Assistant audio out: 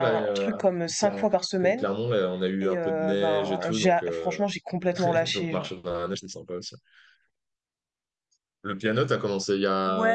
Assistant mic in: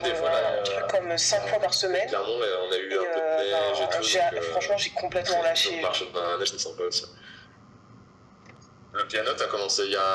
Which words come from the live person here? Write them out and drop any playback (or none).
none